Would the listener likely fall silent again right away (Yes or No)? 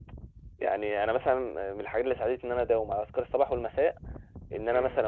Yes